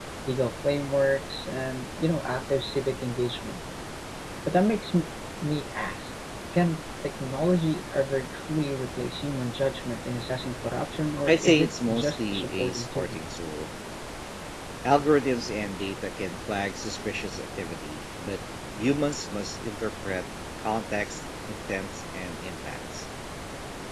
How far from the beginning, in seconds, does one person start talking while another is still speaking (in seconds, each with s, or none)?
11.3 s